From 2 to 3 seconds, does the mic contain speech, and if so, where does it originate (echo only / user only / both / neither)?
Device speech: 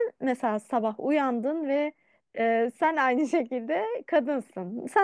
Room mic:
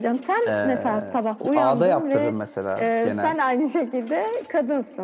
both